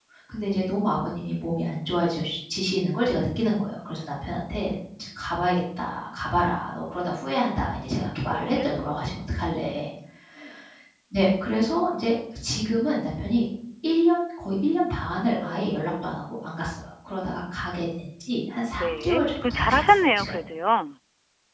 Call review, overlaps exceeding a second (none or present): present